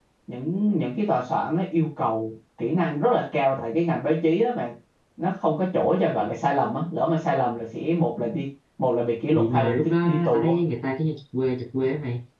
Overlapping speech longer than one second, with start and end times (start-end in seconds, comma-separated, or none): 9.3-10.6